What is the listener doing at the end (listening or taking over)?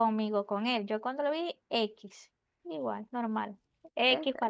listening